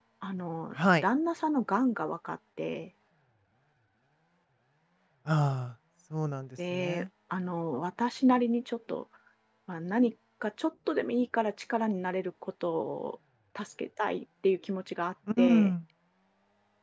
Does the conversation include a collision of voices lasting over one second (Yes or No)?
No